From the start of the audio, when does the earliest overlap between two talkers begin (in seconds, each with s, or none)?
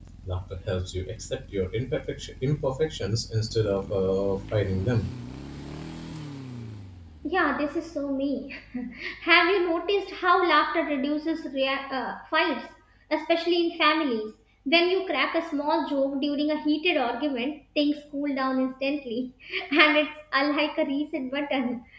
none